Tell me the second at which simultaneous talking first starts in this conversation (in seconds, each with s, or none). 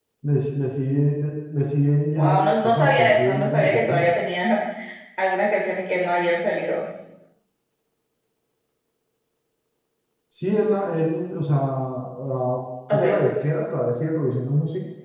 2.2 s